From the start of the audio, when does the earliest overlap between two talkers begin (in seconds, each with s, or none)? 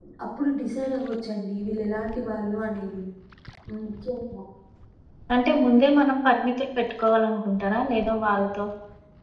none